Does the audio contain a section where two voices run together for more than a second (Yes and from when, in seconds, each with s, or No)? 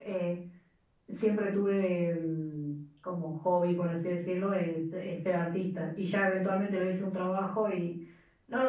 No